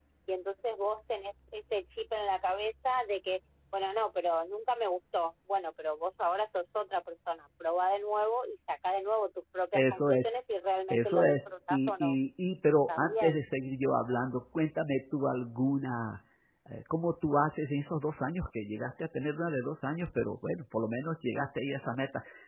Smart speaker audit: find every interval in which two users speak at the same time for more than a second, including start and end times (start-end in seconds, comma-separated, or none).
10.9-12.2